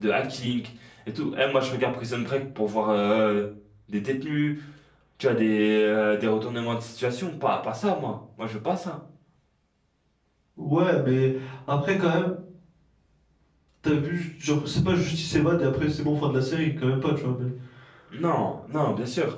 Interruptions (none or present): none